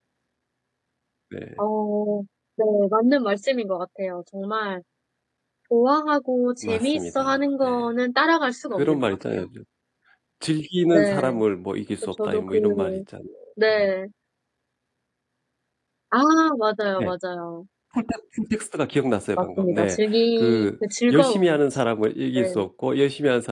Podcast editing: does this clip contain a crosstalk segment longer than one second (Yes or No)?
Yes